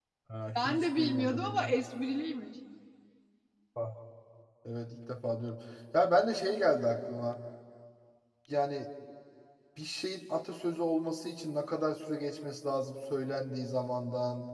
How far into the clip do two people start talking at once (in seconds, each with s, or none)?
0.6 s